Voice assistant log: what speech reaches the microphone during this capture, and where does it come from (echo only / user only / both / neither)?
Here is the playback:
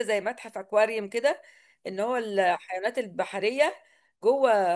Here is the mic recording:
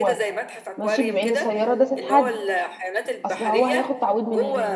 both